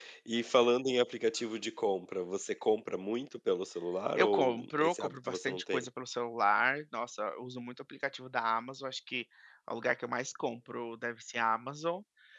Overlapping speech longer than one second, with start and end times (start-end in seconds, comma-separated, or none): 4.1-5.8